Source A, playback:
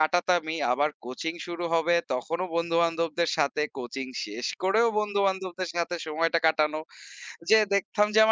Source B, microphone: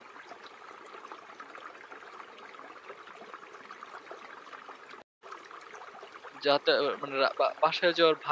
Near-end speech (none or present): present